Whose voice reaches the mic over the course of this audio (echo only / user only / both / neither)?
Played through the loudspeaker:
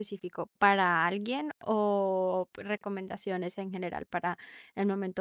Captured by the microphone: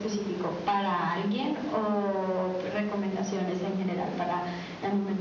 echo only